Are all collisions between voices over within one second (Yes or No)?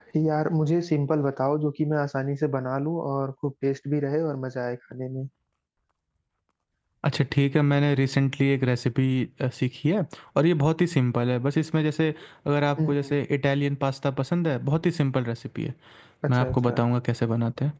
Yes